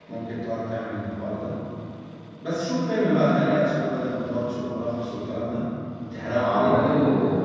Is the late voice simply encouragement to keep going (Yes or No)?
No